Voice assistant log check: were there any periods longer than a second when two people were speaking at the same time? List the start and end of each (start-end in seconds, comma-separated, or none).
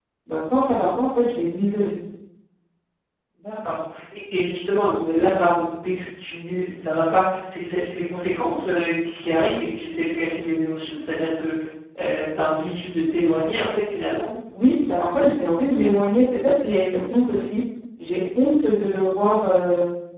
none